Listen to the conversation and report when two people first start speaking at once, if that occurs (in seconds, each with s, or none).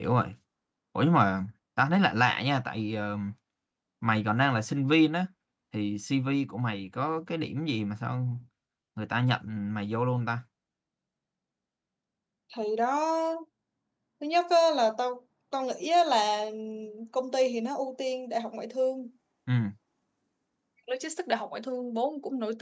none